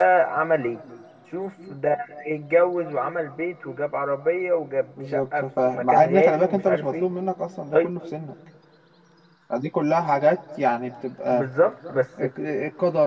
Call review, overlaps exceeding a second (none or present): present